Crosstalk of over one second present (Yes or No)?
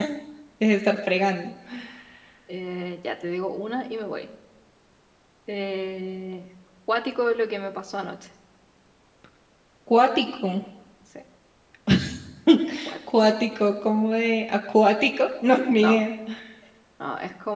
No